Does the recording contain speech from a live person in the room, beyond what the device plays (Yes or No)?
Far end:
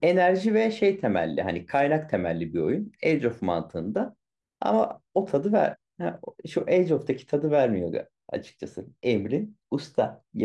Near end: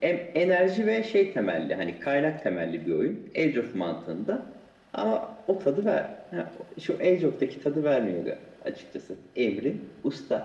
No